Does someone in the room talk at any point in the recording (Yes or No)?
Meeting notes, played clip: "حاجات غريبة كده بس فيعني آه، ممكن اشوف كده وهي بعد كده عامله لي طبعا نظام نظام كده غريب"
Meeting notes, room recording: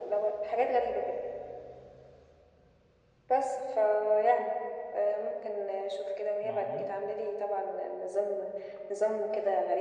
Yes